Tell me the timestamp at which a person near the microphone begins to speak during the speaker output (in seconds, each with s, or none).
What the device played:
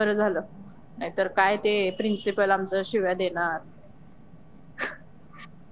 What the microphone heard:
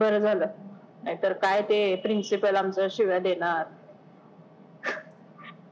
none